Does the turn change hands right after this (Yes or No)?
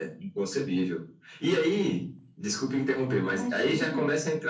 No